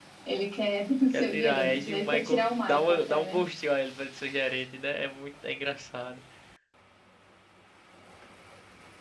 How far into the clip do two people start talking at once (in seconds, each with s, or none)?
1.1 s